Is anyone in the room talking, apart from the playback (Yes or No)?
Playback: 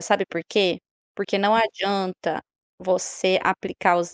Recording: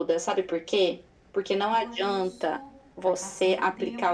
Yes